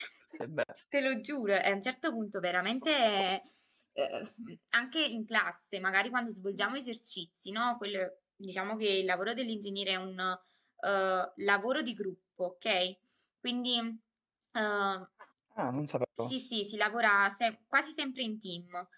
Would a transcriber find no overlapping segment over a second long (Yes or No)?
Yes